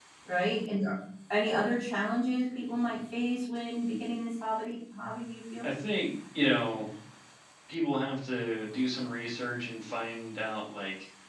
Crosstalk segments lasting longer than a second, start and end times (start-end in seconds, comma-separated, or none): none